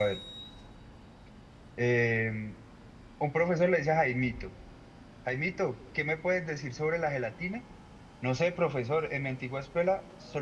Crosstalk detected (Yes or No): No